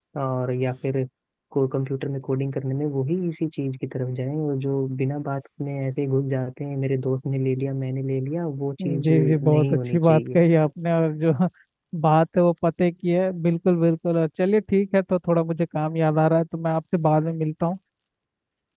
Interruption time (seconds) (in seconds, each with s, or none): 8.8 s